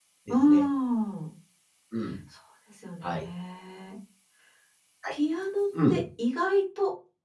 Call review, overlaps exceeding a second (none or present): none